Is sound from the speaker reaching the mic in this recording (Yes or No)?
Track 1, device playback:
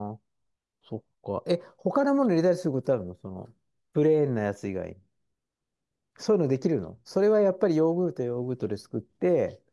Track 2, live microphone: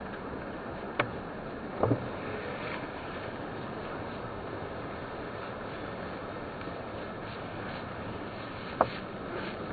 No